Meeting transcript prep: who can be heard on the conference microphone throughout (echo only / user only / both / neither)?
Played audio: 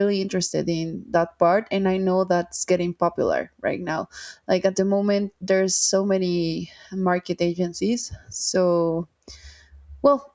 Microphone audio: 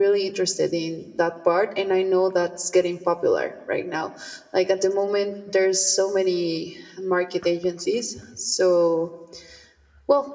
echo only